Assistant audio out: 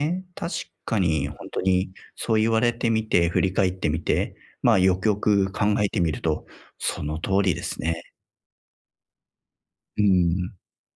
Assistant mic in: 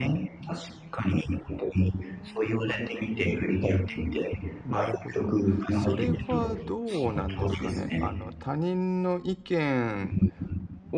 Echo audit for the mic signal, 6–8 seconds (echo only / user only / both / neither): both